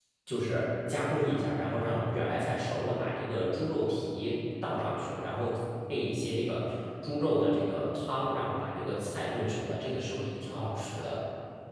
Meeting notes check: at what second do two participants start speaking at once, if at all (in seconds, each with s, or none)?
none